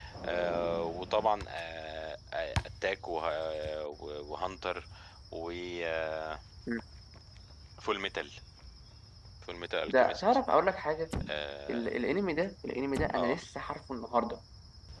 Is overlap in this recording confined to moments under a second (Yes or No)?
Yes